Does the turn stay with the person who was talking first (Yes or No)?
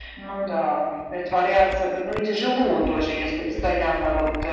Yes